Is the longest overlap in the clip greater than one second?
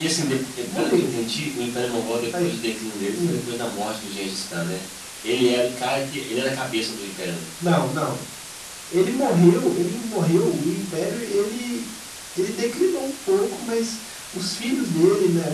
No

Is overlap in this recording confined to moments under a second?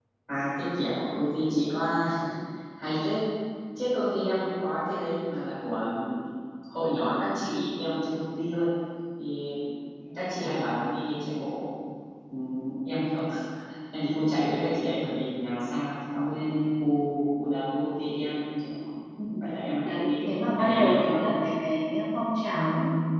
No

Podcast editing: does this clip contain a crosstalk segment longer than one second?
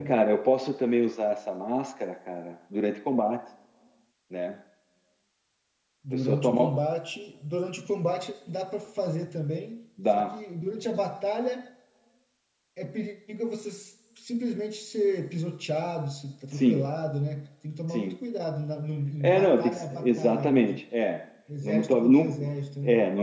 Yes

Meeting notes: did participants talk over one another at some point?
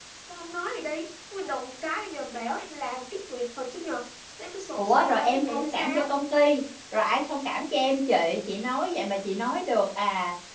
Yes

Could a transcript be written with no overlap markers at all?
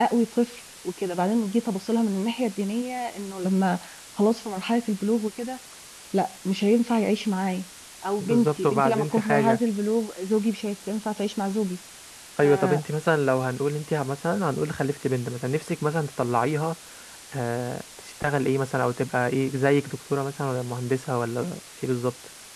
No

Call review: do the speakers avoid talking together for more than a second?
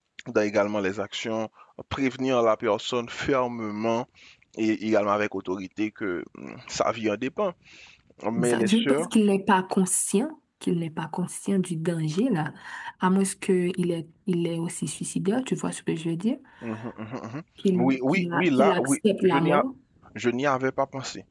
No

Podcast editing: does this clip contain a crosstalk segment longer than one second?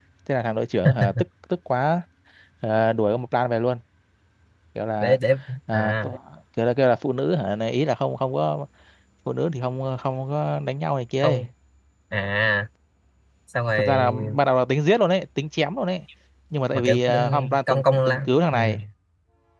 Yes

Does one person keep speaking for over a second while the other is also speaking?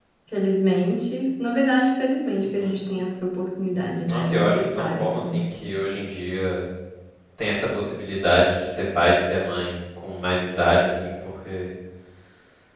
Yes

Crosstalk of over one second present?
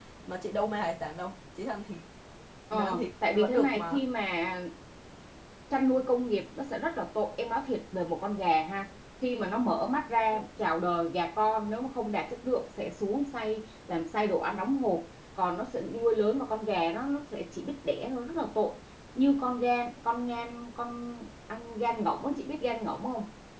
Yes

